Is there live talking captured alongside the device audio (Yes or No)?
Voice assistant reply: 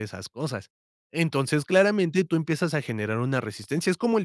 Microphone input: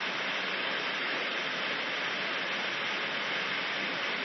No